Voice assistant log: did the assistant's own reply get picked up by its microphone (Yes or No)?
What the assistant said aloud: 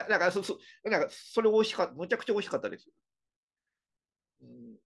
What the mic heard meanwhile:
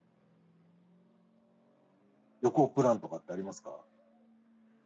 No